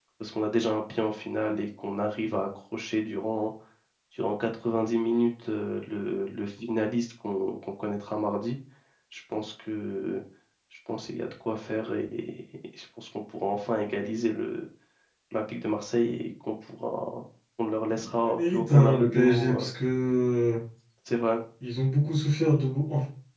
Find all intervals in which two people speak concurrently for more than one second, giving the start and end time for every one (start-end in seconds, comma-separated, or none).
18.2-19.7